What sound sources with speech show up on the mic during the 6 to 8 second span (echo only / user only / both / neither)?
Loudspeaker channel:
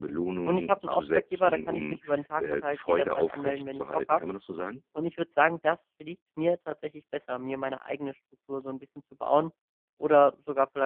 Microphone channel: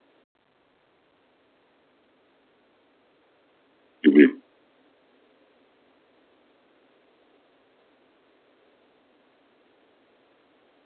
neither